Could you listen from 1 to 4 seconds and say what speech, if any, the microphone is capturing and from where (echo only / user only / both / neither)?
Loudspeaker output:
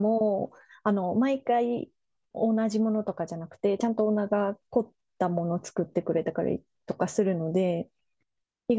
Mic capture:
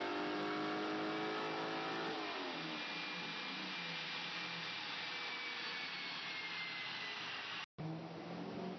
neither